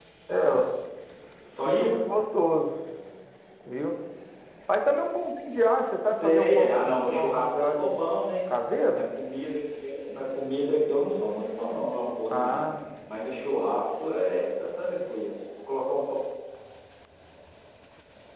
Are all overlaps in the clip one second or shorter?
No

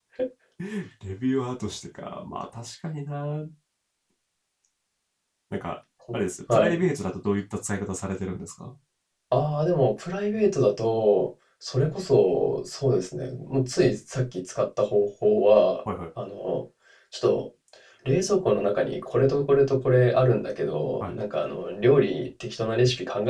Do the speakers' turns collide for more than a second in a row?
No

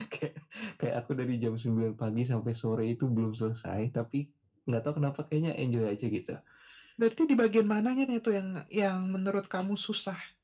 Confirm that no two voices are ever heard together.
Yes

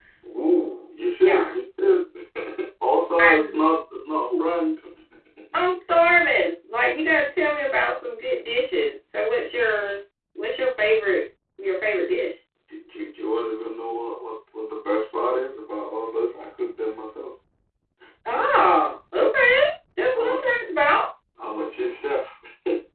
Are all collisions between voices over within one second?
Yes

